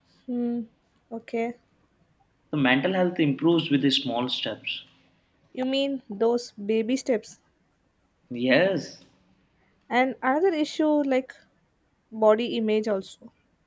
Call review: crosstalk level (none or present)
none